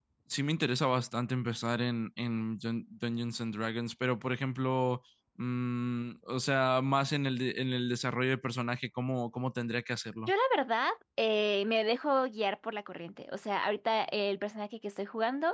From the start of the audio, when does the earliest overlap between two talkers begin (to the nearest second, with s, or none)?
none